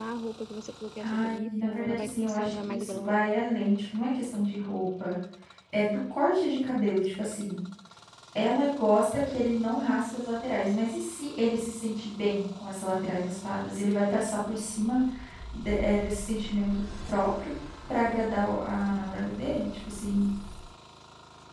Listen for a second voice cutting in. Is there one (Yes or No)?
Yes